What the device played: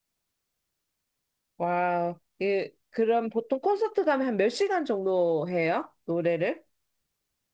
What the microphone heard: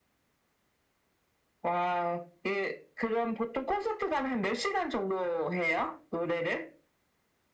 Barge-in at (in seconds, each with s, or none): none